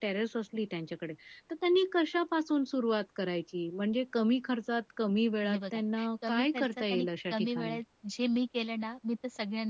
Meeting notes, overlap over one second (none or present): present